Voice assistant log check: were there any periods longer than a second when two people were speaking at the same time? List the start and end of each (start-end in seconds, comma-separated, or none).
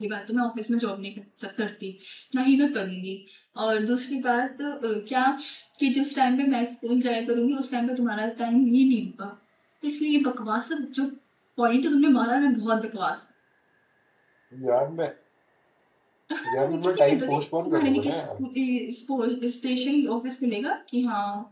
16.6-18.1